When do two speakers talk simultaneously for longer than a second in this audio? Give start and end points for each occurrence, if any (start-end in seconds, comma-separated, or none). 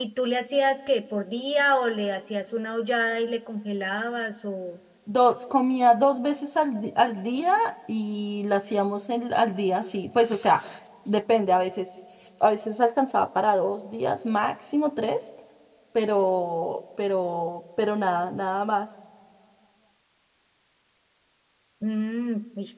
none